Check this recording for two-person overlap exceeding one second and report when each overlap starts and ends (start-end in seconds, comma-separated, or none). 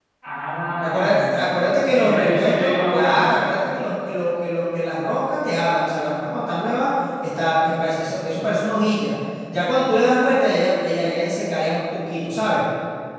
0.8-3.6